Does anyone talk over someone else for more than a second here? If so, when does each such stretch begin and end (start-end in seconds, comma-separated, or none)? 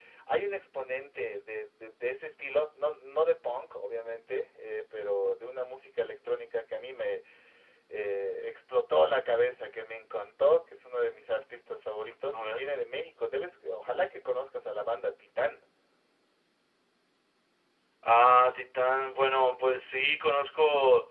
none